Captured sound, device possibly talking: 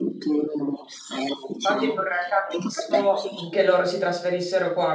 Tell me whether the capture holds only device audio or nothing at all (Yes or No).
No